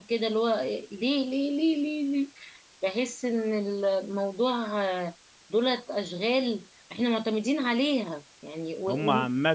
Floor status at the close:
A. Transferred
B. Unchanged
A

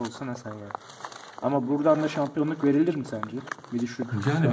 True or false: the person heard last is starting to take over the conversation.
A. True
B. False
A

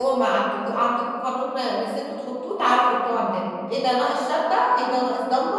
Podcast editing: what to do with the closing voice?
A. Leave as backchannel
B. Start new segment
A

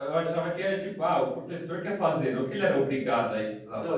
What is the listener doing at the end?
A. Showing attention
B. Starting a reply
B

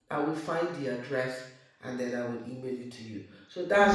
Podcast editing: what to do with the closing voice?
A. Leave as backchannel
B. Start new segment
A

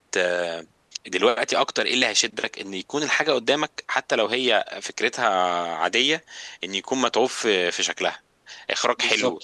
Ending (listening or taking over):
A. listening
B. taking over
A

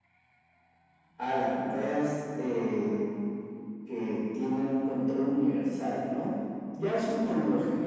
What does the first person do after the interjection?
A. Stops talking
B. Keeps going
B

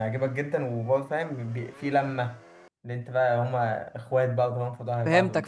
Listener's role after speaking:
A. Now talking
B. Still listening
A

